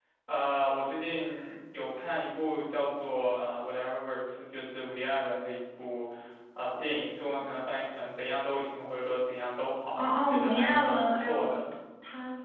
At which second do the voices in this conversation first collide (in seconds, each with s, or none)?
10.0 s